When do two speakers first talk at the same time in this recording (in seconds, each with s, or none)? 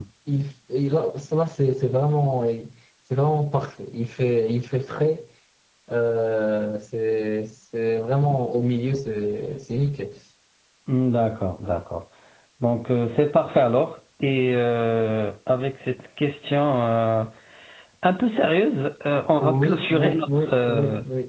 19.4 s